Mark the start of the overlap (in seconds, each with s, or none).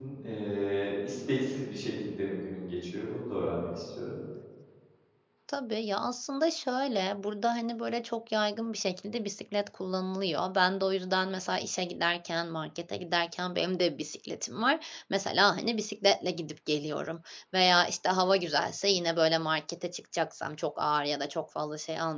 none